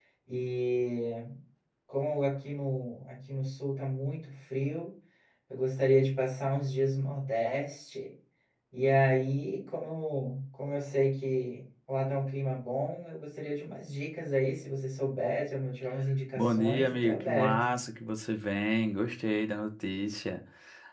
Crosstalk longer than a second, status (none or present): present